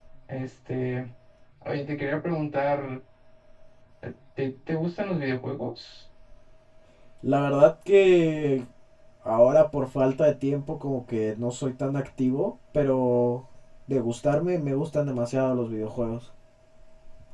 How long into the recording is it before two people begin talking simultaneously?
none

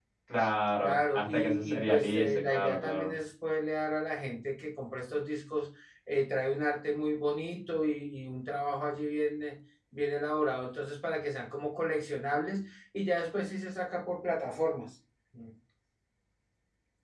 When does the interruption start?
0.8 s

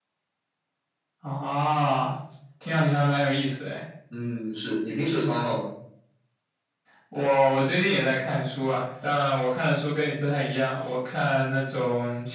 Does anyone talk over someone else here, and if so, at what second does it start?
none

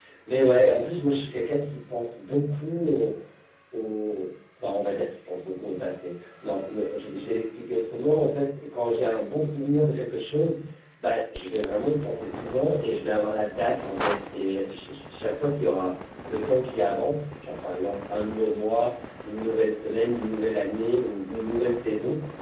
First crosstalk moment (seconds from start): none

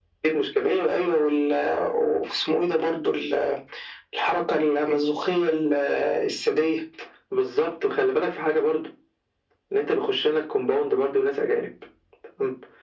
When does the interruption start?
none

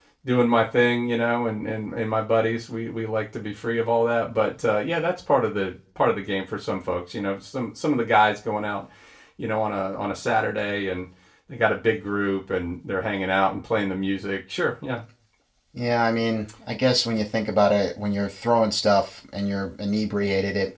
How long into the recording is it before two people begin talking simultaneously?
none

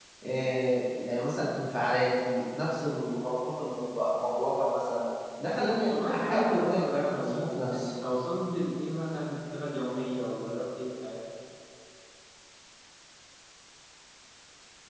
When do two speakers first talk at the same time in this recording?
5.9 s

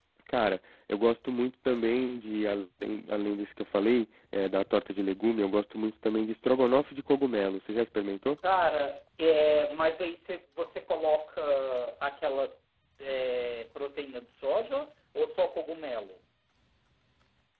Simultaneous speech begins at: none

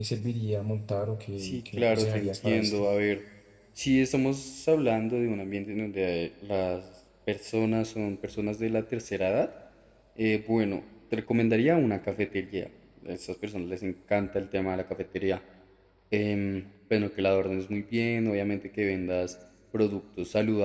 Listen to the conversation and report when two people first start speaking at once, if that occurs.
1.4 s

